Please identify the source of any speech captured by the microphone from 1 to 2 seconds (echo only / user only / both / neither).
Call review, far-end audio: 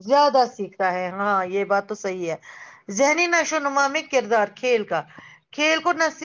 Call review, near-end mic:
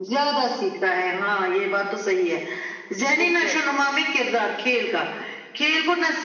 echo only